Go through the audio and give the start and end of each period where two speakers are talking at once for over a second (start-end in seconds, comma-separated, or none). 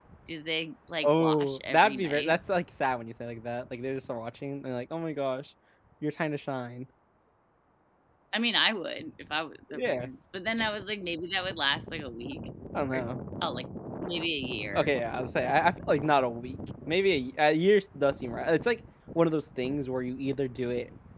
1.0-2.4